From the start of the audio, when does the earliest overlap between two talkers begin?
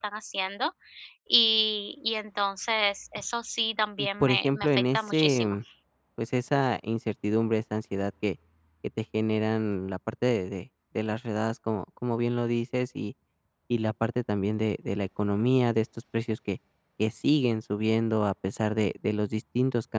4 s

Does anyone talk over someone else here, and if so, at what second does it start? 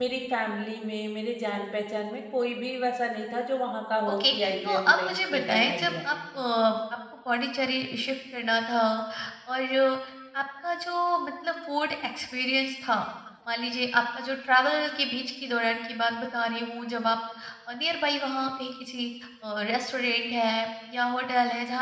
4 s

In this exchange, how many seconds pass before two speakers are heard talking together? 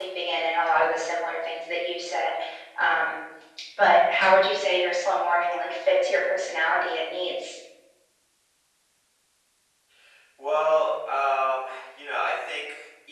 none

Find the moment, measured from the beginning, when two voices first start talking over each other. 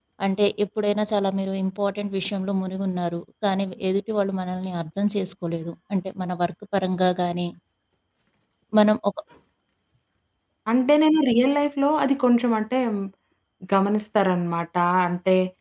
none

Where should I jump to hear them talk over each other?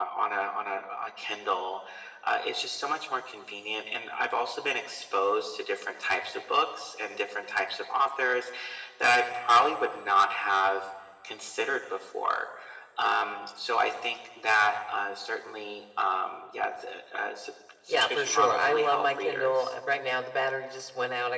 18 s

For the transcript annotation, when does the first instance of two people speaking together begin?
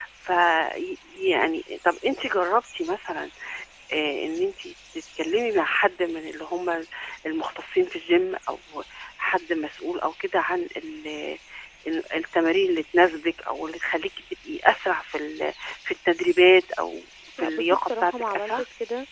17 s

